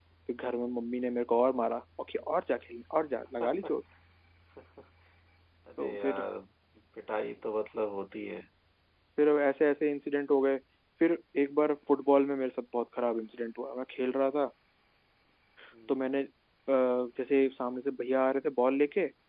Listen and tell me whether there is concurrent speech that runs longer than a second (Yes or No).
No